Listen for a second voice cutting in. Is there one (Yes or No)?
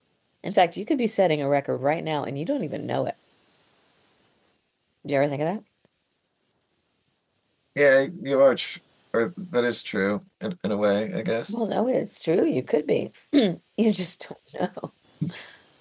No